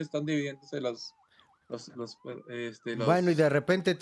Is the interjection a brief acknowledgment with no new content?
No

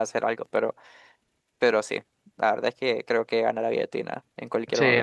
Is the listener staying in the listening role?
No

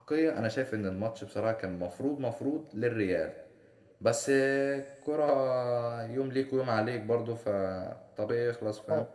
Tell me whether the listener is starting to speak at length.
Yes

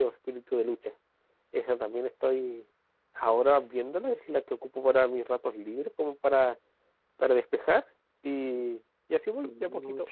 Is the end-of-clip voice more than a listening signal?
Yes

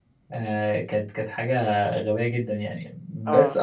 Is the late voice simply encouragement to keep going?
Yes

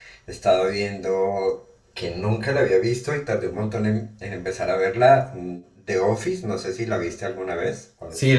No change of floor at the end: No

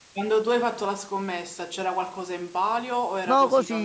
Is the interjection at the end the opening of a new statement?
Yes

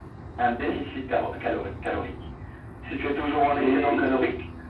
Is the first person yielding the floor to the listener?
No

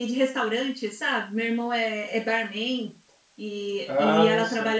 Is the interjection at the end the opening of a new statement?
No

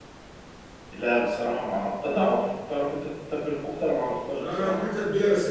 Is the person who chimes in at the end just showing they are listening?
No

